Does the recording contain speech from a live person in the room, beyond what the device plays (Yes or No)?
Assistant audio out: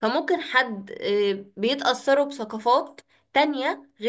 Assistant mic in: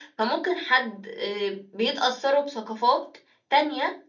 No